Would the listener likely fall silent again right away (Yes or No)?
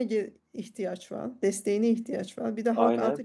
Yes